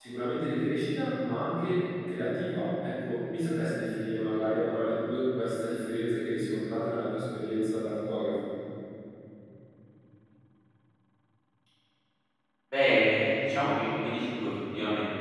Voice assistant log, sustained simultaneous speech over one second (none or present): none